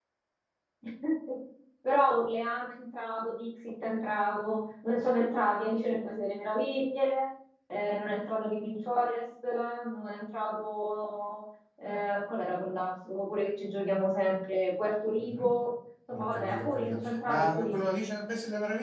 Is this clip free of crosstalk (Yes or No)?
No